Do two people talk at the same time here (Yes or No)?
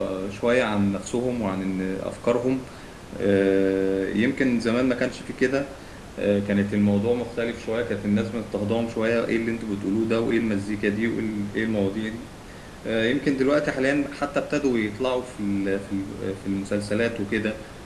No